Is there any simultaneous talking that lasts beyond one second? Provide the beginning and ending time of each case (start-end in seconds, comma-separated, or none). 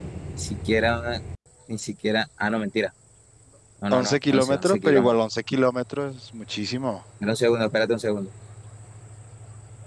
3.9-5.2